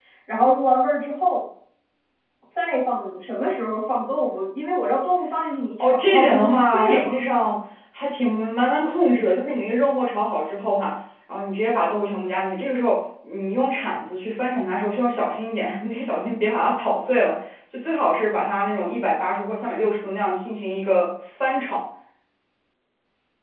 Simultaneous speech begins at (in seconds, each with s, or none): 5.8 s